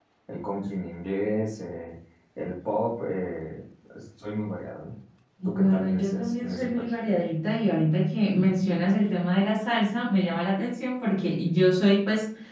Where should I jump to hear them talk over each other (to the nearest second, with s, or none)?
5 s